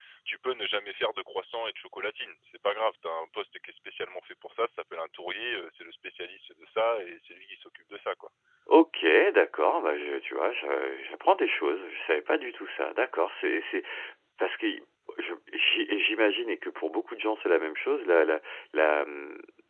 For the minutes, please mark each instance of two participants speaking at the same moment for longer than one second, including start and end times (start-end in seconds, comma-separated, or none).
none